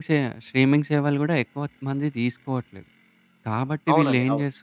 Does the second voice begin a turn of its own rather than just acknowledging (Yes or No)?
No